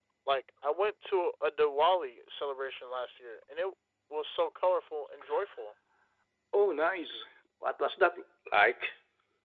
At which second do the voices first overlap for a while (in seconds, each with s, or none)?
none